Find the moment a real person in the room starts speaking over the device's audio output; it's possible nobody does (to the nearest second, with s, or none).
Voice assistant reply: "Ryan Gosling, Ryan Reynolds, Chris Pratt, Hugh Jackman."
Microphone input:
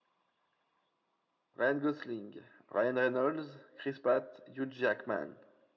none